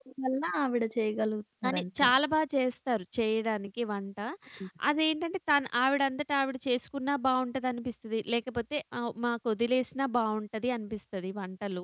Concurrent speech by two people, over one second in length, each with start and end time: none

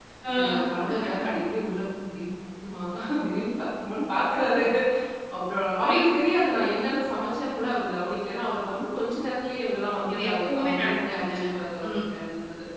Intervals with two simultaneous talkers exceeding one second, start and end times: 10.1-11.5

